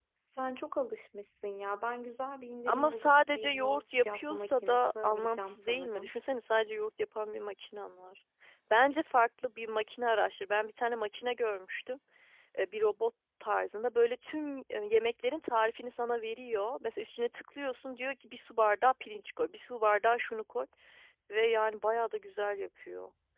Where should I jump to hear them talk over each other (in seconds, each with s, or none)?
2.7 s